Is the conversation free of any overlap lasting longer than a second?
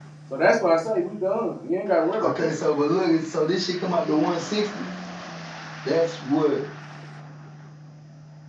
Yes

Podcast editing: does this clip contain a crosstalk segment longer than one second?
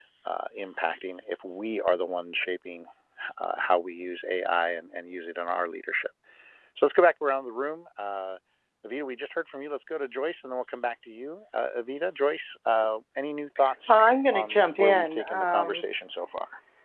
Yes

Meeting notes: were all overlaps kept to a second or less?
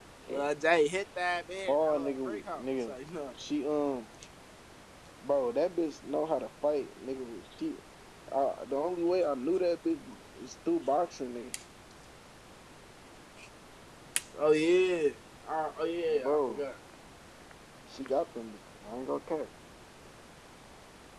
No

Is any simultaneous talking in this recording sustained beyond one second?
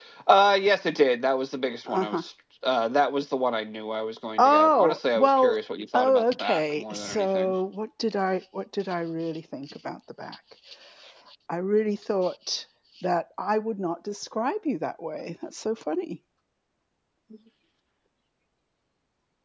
Yes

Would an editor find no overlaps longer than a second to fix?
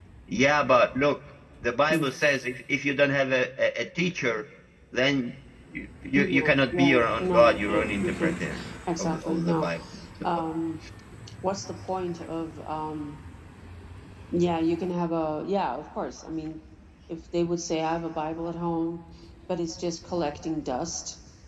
No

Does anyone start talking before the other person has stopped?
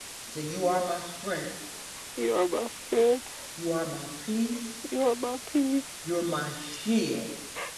No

